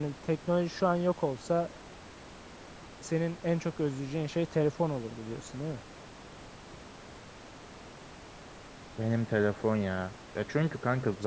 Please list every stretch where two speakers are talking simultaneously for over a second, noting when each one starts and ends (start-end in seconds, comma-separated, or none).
none